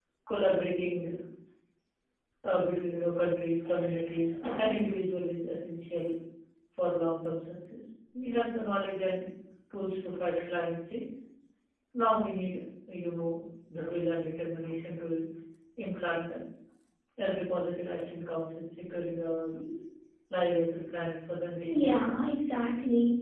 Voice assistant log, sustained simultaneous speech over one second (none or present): none